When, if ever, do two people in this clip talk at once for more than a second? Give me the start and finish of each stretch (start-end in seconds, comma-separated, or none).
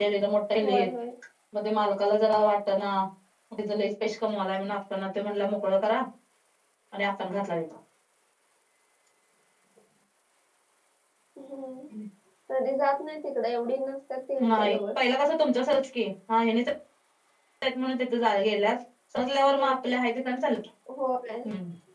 none